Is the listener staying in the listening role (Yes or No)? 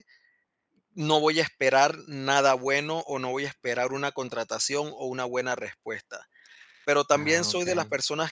Yes